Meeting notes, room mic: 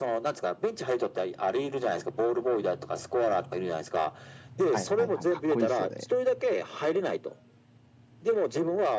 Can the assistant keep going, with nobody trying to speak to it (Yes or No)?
No